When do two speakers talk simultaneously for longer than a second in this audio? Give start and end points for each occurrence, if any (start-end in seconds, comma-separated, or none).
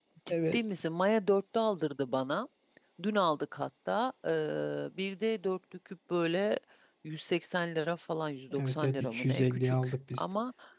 8.6-10.2